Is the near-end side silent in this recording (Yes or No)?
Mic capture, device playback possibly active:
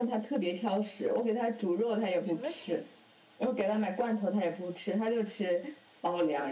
No